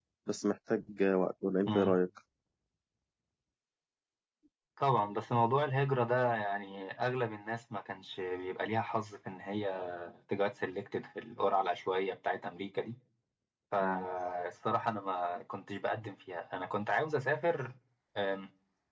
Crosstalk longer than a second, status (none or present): none